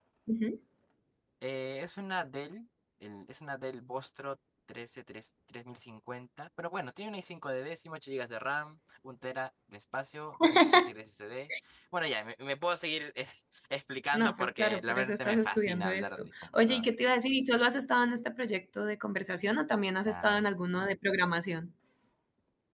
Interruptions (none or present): present